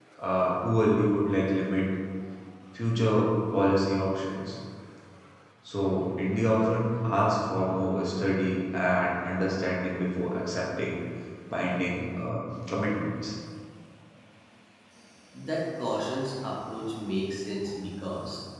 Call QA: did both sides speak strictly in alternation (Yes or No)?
Yes